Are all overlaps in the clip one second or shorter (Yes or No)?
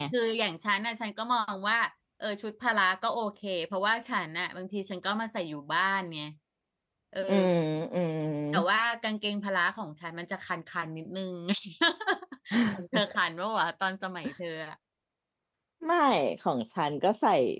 Yes